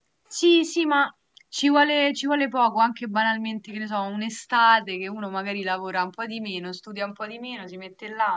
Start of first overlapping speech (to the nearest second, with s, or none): none